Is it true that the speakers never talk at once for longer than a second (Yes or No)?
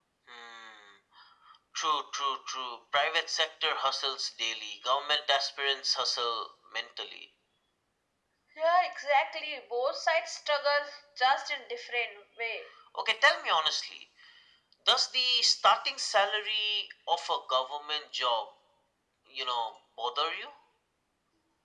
Yes